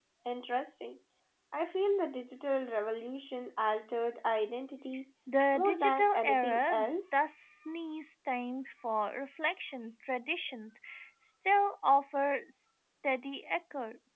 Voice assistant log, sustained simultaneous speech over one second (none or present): present